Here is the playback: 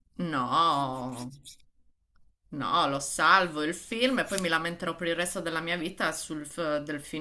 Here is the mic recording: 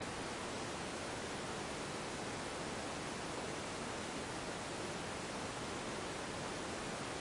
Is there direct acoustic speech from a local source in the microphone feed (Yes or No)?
No